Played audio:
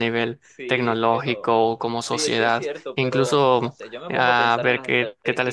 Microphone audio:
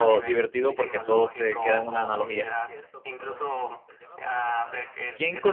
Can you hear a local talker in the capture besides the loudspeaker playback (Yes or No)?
Yes